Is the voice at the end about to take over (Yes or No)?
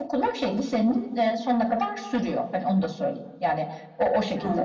No